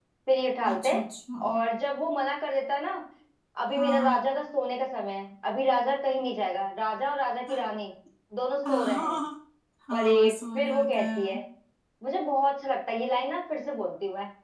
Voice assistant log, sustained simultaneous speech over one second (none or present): present